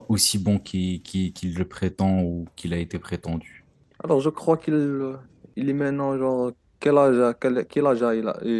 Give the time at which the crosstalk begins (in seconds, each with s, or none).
none